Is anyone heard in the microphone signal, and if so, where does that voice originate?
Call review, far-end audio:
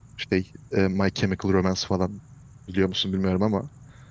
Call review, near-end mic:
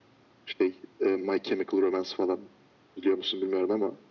echo only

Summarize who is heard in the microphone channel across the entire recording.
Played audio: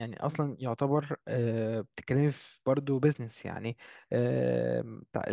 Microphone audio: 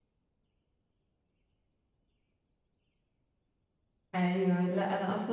user only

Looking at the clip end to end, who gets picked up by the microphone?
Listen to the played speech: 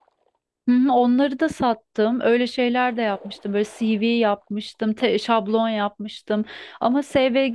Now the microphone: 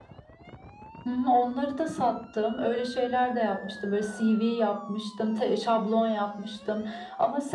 echo only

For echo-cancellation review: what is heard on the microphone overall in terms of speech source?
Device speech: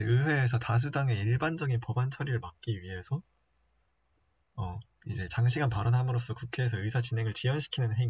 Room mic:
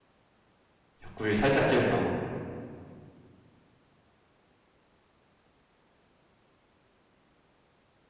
user only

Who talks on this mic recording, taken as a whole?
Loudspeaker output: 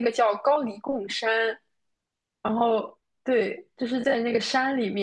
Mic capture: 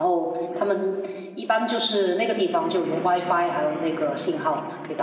user only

